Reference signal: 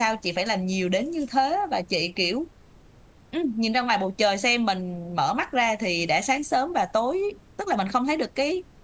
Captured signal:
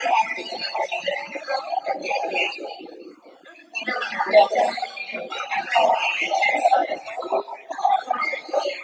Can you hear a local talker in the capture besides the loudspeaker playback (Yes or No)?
No